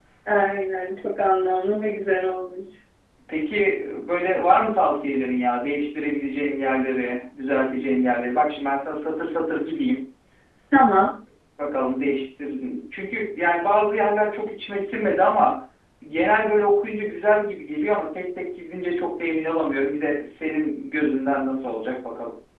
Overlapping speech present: No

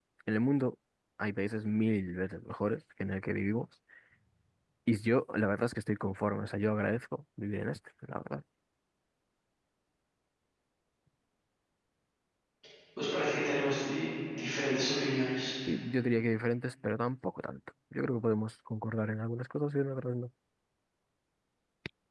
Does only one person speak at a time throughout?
Yes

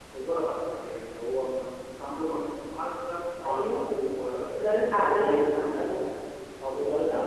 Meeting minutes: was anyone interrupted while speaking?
Yes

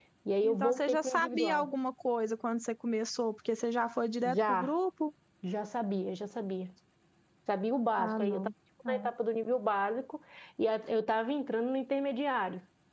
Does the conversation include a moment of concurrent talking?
Yes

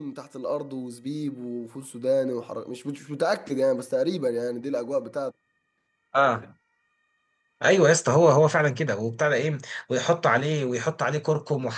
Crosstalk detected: No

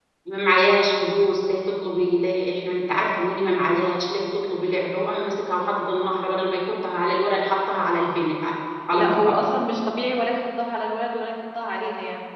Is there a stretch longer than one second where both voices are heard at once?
No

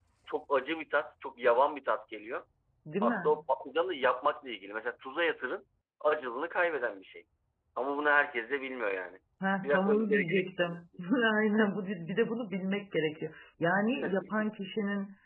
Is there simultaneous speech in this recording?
Yes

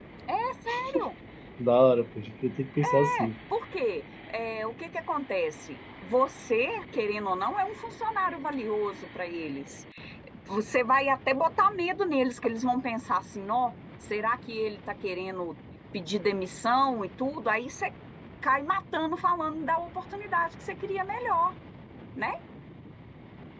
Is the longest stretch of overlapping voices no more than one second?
Yes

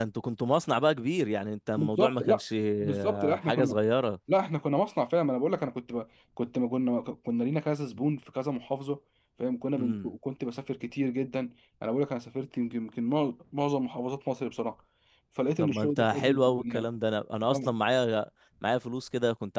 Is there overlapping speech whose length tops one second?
Yes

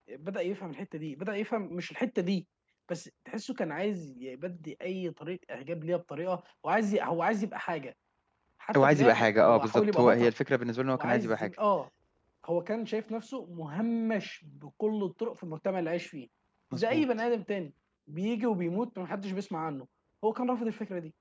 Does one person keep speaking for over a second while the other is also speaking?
Yes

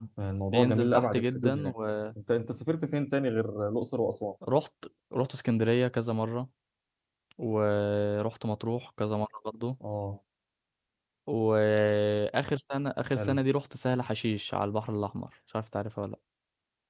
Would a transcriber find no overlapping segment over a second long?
No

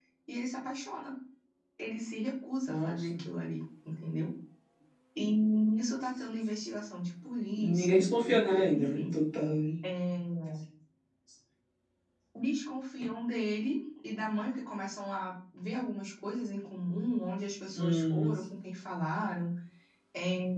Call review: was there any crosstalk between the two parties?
Yes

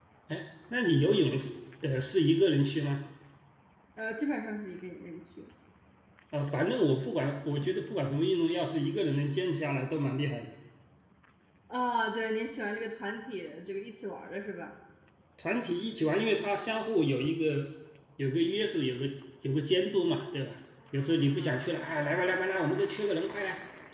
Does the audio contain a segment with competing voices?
No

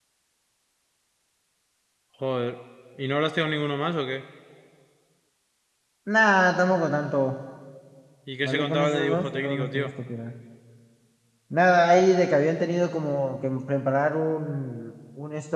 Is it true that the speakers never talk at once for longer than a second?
No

